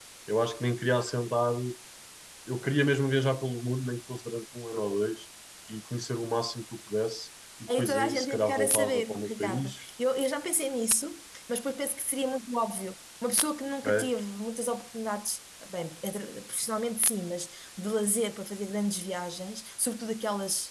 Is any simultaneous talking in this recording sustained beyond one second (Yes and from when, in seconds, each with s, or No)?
Yes, from 7.8 s